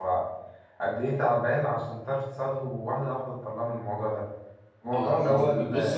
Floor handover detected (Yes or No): Yes